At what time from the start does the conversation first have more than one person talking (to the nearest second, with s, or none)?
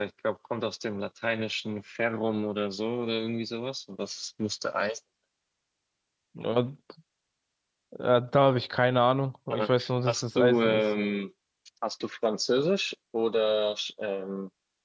10 s